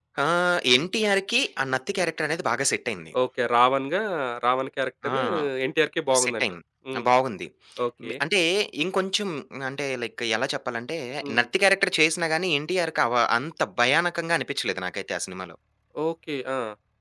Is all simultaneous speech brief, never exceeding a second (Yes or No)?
Yes